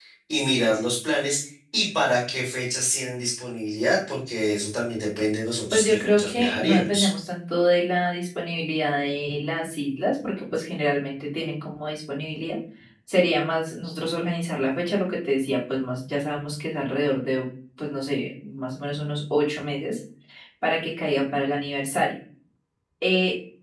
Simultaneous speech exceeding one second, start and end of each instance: 5.7-7.1

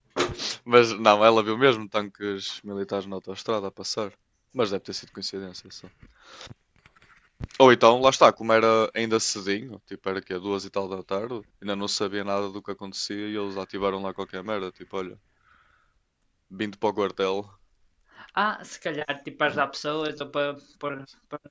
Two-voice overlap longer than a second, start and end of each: none

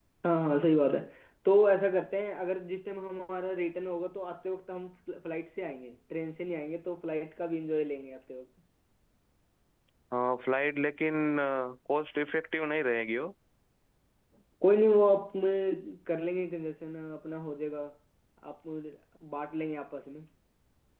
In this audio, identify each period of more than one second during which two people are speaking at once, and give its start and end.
none

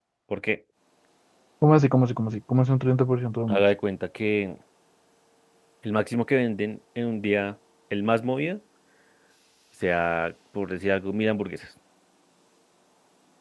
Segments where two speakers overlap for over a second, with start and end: none

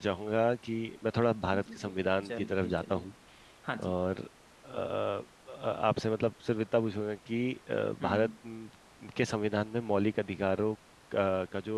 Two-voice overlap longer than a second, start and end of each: 1.5-3.0

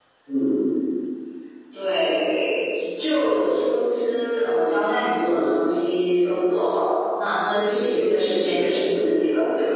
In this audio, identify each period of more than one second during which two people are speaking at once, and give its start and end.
7.7-9.1

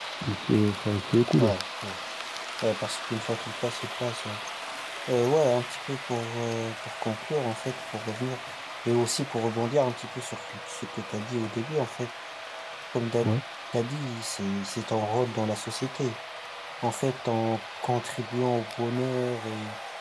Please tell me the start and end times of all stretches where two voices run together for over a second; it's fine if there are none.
none

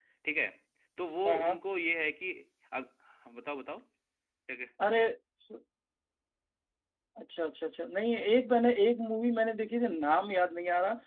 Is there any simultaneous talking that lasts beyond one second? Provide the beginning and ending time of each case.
none

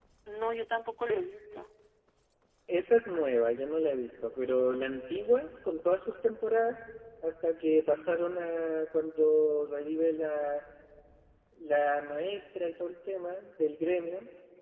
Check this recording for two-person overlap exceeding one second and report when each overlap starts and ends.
none

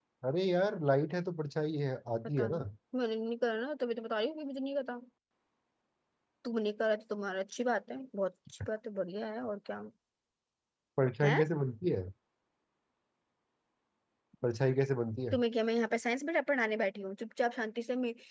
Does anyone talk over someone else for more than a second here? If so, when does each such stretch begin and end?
none

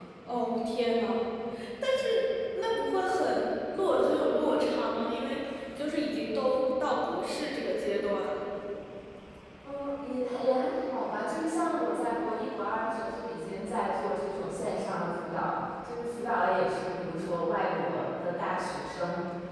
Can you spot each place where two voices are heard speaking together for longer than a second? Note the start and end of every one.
none

